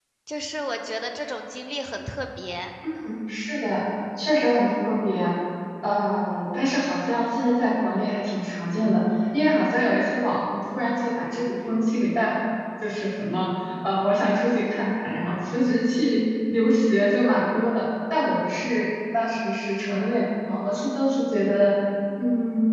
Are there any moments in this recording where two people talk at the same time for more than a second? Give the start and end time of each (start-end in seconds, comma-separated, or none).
none